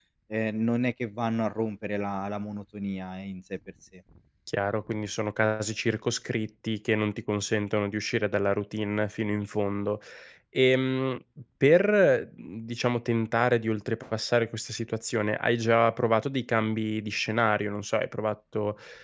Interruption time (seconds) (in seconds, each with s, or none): none